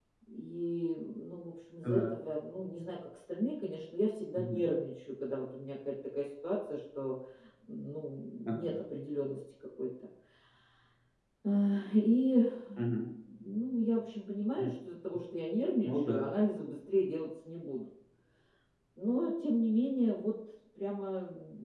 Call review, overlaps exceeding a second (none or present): none